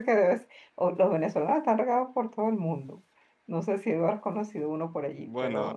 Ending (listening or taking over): taking over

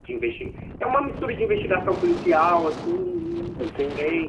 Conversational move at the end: taking over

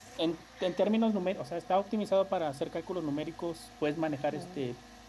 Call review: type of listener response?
listening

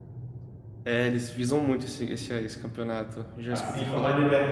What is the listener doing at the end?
taking over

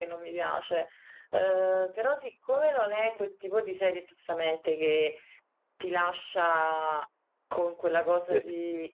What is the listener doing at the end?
listening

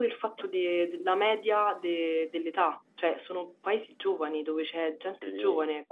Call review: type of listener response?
listening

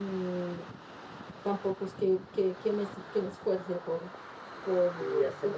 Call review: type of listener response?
taking over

